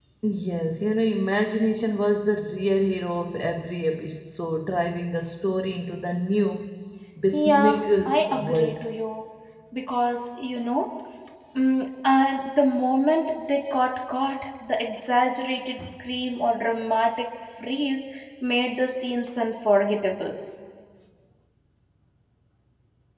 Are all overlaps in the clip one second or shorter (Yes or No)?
No